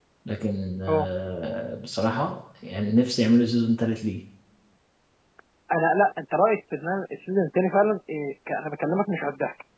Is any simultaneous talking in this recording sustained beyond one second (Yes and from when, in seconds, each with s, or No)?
No